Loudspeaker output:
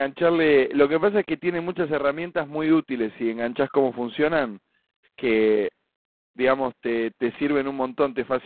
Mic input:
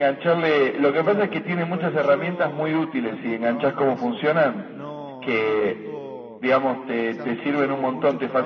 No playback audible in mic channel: No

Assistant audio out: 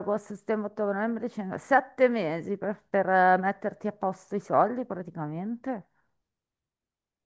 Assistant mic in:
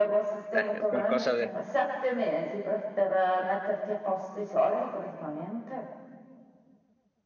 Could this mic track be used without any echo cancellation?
No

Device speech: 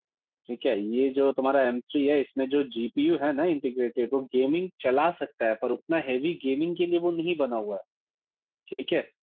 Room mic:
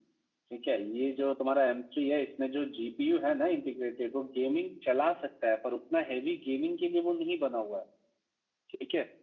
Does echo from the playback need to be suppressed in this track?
Yes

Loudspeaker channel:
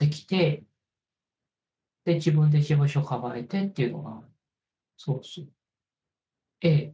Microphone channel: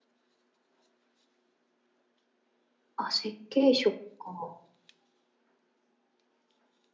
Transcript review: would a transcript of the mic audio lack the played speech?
Yes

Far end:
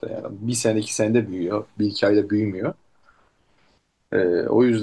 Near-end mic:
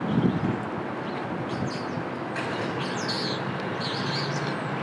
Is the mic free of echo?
Yes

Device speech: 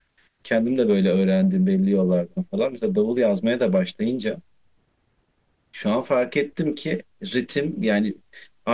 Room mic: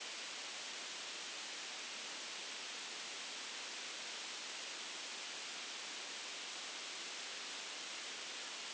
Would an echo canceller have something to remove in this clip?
No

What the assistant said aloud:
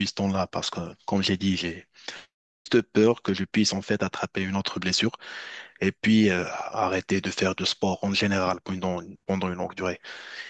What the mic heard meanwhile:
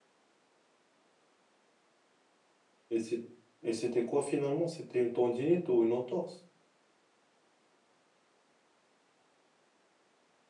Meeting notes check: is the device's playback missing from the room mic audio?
Yes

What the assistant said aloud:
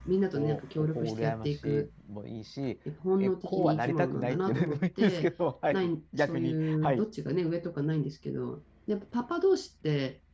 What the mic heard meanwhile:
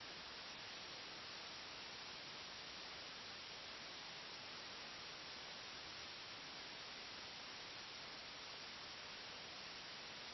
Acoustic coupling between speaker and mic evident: No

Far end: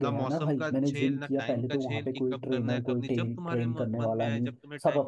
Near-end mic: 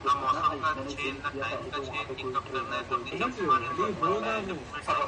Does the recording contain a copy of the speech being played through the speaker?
Yes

